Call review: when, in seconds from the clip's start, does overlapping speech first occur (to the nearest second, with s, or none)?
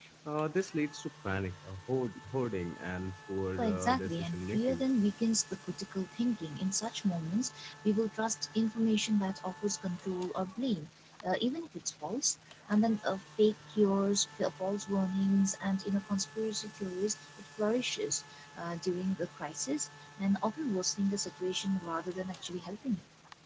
4 s